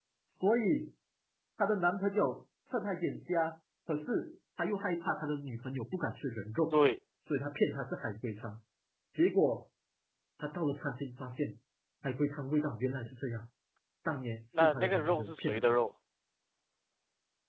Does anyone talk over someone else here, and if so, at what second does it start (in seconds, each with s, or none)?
14.5 s